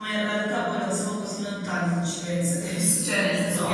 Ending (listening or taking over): taking over